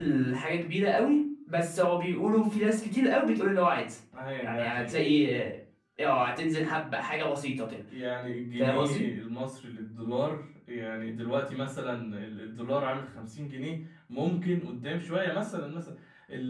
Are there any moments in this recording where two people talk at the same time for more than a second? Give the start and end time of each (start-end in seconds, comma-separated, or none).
none